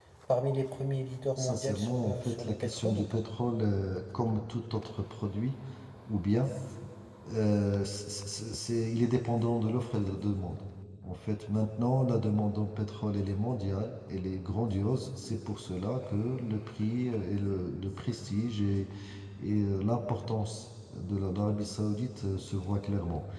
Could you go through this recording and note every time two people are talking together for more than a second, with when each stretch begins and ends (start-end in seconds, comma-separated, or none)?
1.4-3.2